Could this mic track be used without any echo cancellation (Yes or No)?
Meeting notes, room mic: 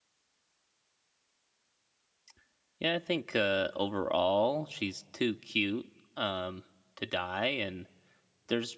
Yes